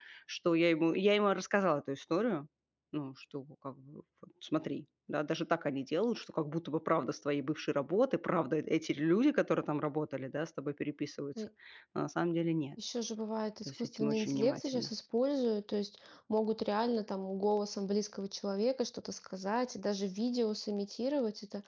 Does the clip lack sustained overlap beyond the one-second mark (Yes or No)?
No